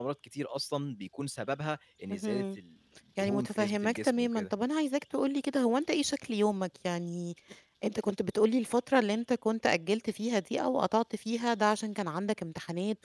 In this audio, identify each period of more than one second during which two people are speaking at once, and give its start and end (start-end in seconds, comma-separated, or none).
3.2-4.5